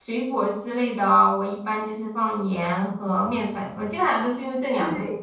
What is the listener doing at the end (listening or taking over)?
taking over